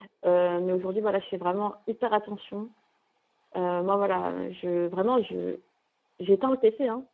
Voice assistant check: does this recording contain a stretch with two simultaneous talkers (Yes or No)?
No